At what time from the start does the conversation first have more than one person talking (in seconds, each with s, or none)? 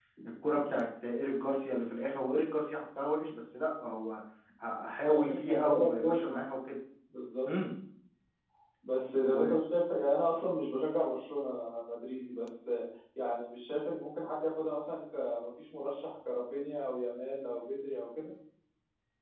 5.1 s